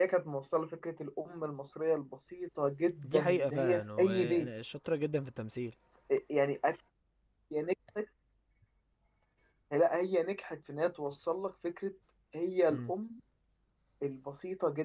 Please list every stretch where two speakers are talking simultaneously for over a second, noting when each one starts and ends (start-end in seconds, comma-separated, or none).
3.0-4.5